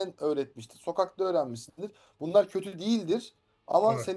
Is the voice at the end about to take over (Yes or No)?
No